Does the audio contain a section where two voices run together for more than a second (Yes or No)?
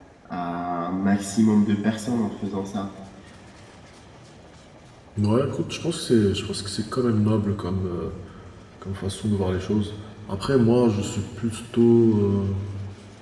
No